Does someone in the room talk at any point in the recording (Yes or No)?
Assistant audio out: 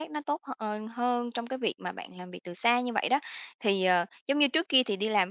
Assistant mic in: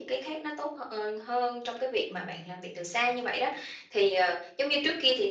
Yes